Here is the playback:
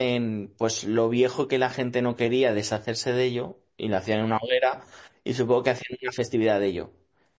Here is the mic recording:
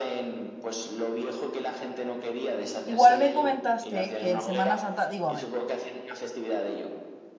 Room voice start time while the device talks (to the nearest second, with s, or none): 3 s